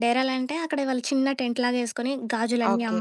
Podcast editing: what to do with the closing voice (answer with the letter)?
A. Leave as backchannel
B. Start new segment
A